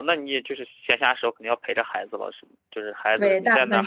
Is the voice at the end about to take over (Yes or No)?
Yes